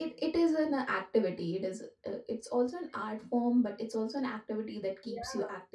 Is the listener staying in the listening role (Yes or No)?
No